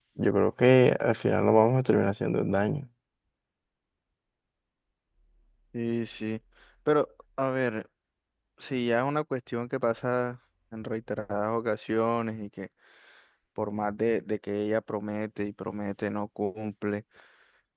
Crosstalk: none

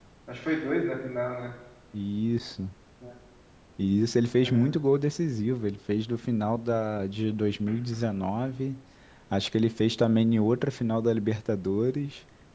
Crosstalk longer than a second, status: none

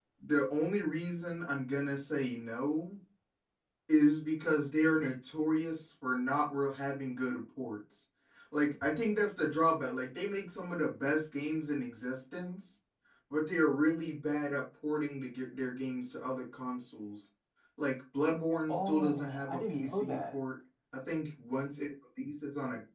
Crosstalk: present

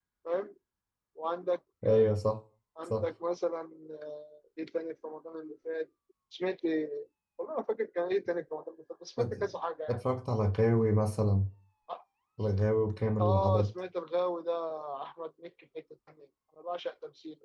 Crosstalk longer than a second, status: none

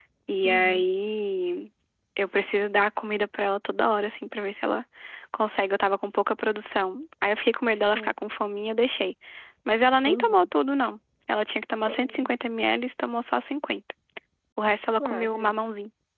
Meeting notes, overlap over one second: none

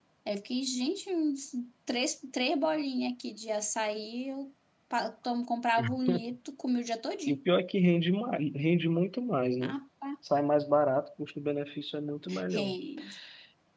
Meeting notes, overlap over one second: none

